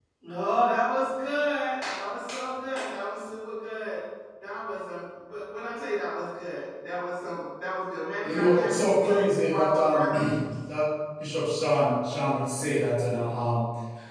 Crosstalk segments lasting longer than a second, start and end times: 8.2-10.1

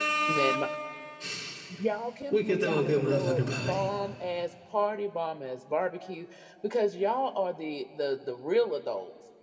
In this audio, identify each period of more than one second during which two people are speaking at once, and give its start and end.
2.3-3.9

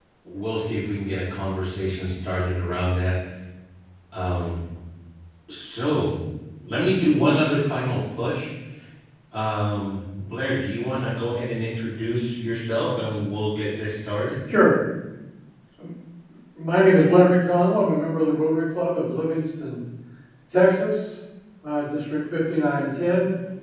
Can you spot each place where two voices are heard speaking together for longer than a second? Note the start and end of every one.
none

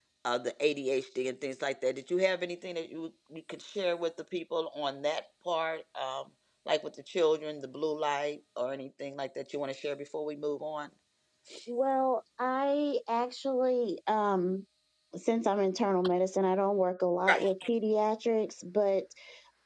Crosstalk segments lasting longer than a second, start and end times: none

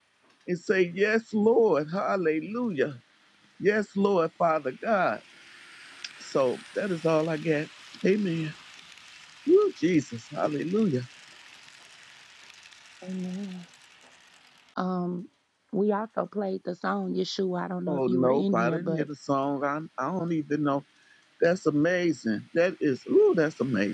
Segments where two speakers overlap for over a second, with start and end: 17.9-19.1

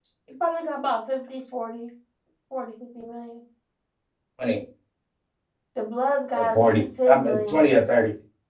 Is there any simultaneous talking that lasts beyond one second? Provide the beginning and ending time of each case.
6.4-7.6

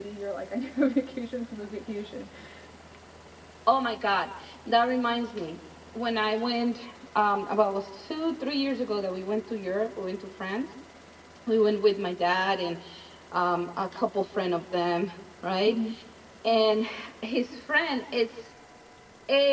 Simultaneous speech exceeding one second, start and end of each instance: none

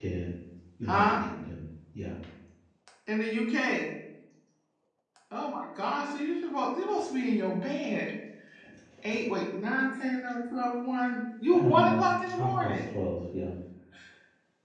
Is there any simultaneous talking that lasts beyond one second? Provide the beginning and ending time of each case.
11.6-12.8

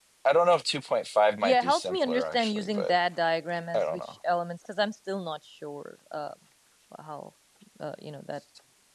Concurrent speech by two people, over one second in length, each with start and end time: 1.4-2.9

